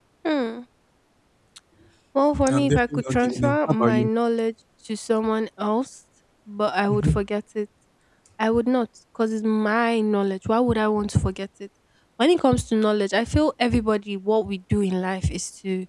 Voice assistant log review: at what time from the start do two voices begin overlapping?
2.5 s

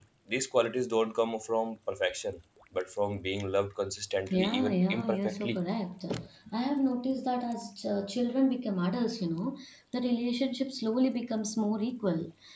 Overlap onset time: 4.3 s

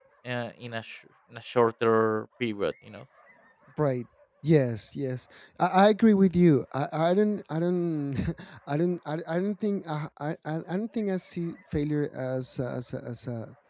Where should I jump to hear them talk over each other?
none

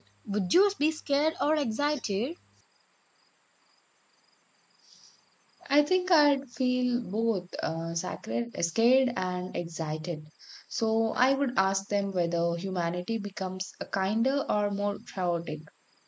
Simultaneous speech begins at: none

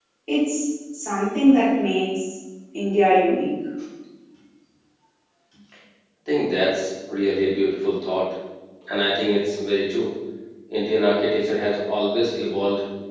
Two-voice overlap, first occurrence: none

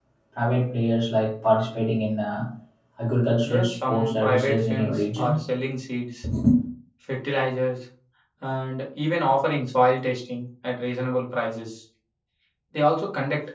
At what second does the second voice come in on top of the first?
3.4 s

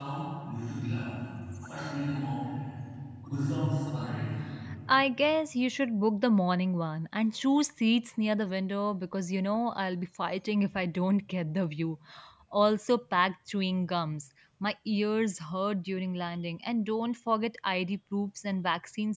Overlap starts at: none

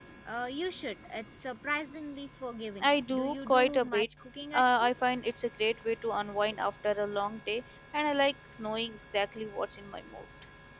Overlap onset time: 2.8 s

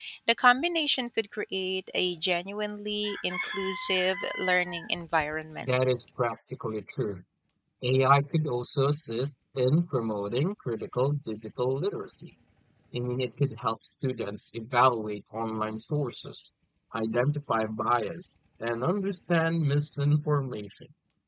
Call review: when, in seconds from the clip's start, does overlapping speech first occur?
none

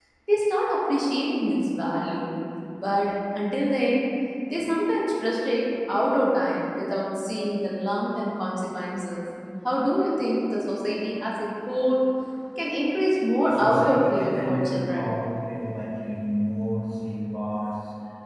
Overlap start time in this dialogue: 13.5 s

